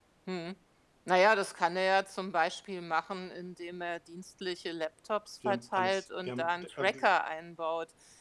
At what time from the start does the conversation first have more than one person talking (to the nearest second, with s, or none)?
5 s